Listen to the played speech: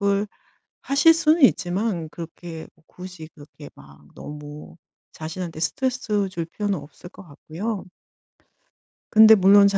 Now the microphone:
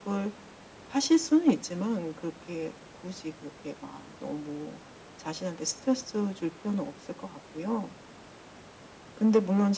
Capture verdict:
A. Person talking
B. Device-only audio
B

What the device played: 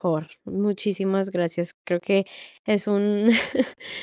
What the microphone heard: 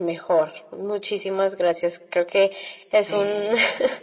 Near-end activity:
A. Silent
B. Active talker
B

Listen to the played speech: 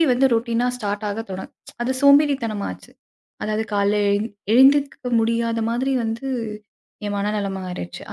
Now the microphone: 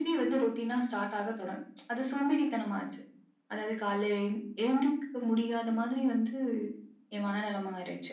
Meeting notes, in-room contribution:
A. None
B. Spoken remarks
A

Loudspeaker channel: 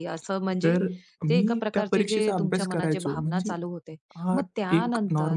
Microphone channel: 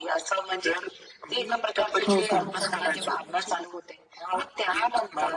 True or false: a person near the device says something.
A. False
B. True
B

